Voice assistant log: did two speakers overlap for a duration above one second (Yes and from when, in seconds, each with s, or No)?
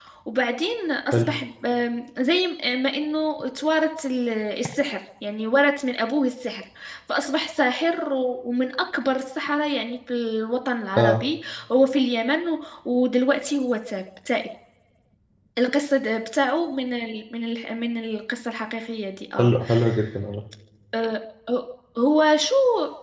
No